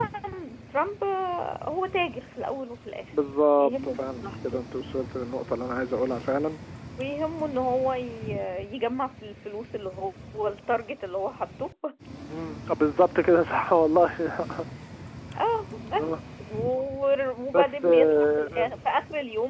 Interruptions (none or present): present